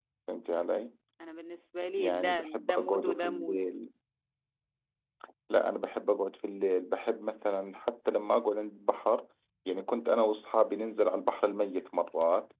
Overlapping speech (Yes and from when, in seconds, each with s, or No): Yes, from 2.0 s